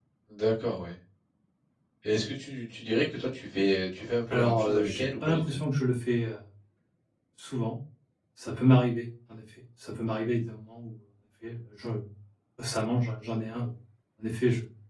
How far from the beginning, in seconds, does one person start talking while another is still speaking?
4.3 s

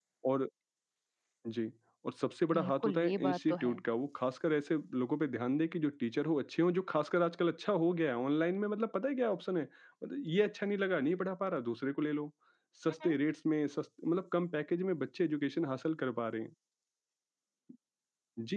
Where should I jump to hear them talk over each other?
2.5 s

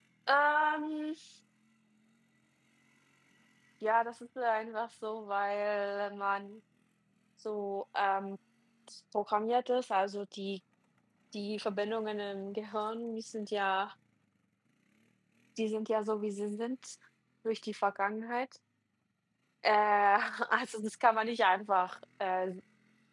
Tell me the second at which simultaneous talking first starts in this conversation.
none

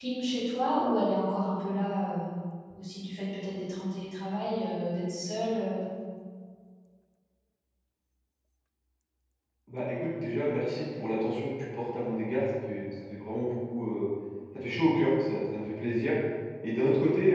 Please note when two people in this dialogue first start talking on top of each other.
none

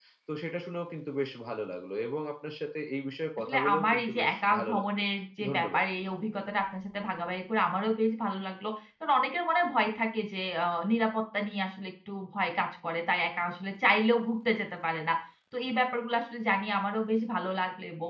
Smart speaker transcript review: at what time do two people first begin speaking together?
3.5 s

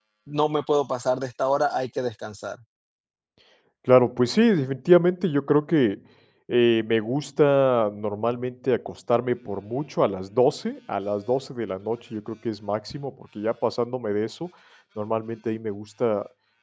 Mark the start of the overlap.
none

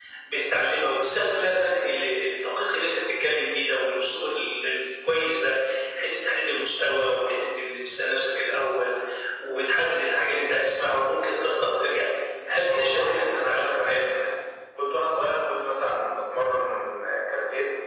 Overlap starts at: 12.7 s

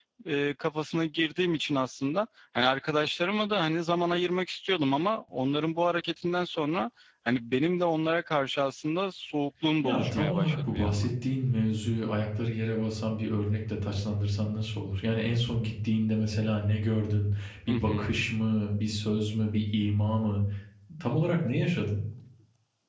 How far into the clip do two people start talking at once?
9.8 s

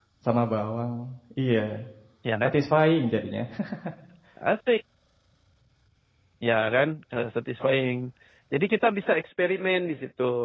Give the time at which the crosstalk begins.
none

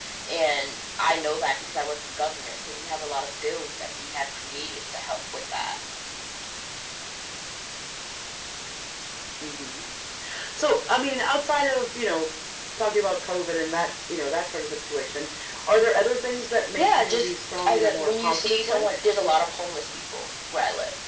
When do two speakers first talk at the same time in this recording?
16.8 s

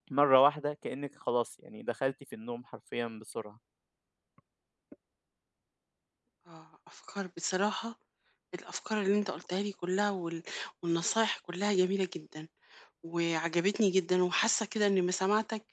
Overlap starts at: none

